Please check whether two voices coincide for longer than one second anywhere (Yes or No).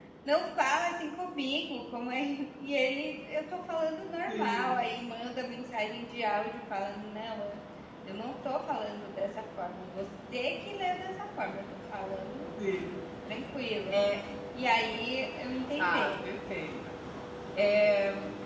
No